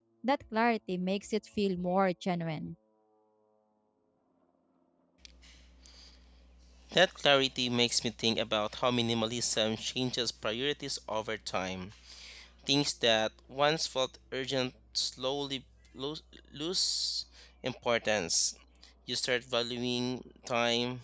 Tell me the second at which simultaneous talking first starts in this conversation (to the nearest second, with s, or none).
none